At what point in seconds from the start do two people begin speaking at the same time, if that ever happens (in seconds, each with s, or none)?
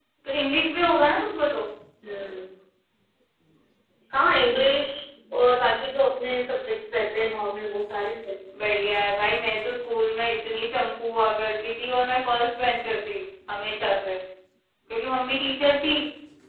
none